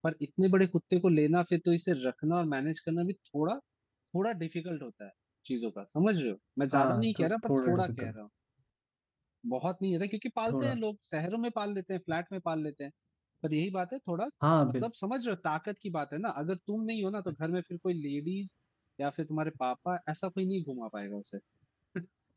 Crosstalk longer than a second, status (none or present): present